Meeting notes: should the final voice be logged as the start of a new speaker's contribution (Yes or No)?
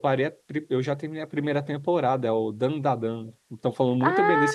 Yes